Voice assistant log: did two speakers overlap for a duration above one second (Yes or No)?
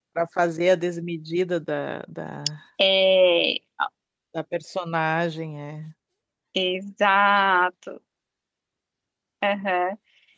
No